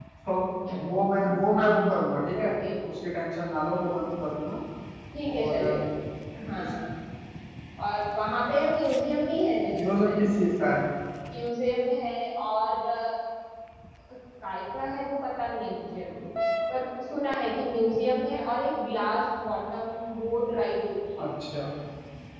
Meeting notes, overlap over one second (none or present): none